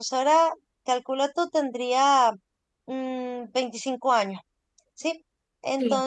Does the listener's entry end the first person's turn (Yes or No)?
No